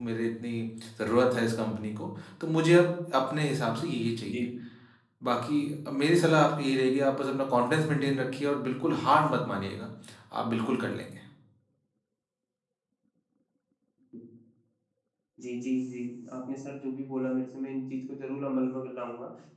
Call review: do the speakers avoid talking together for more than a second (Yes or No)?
Yes